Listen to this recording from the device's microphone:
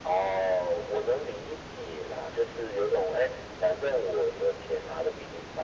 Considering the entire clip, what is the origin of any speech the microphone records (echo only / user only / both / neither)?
echo only